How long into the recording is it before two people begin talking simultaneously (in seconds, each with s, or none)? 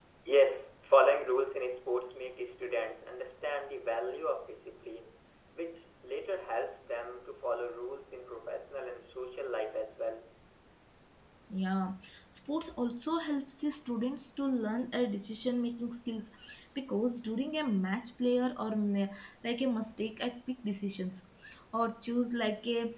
none